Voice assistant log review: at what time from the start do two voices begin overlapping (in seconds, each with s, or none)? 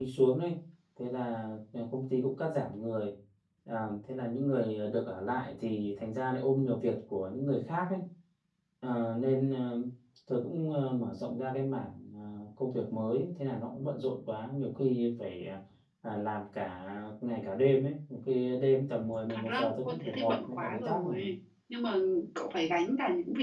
19.3 s